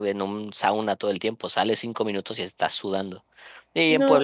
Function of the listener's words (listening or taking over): listening